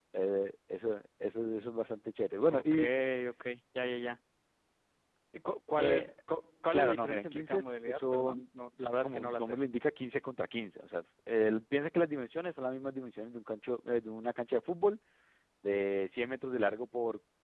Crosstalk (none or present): present